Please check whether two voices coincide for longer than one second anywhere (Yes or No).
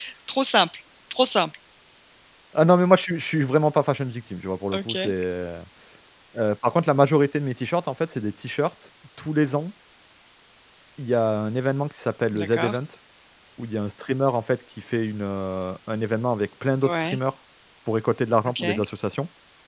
No